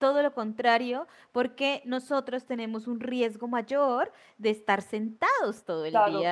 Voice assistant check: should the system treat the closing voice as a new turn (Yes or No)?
Yes